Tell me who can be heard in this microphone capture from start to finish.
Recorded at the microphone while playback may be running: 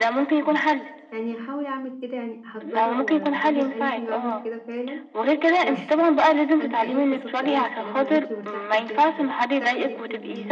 both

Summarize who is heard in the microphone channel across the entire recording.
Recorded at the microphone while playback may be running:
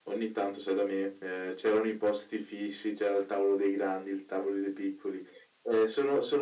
echo only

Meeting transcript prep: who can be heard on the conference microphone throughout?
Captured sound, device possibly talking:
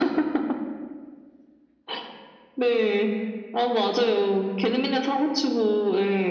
echo only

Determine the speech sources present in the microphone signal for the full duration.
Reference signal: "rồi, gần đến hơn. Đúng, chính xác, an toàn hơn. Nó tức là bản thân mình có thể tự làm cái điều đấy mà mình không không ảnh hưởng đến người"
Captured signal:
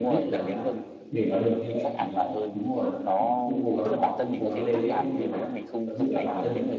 both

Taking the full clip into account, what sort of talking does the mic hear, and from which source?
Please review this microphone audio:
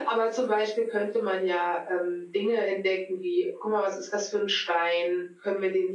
echo only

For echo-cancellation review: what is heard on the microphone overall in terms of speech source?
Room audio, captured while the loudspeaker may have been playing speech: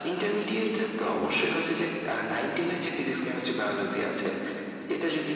echo only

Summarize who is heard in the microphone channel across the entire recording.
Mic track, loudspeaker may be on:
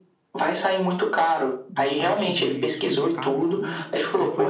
both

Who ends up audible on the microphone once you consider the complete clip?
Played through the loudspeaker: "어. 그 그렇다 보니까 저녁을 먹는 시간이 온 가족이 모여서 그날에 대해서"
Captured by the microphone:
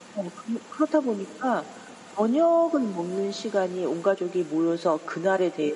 echo only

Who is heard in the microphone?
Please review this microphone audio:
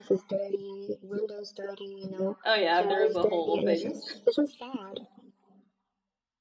both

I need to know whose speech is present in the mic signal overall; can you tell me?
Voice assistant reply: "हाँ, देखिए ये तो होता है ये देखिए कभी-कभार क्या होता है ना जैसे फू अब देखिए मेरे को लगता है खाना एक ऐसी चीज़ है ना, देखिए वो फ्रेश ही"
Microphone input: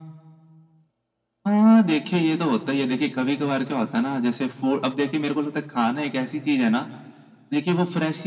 echo only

